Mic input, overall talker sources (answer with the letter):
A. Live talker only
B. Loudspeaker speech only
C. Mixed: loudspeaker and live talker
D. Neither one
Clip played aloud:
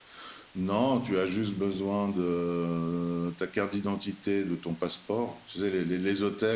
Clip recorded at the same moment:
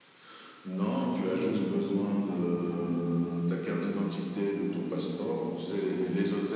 B